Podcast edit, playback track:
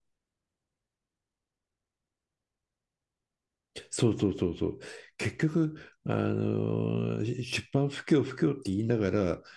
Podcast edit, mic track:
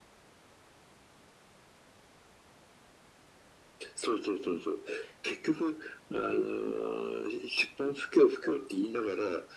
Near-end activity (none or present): none